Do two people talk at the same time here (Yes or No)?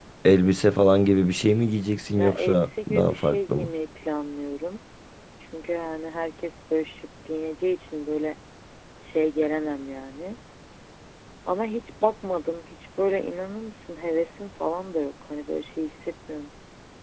Yes